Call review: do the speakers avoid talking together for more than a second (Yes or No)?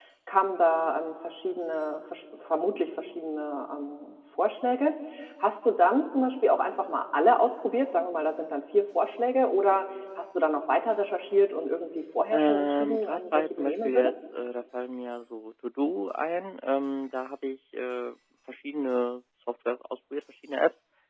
No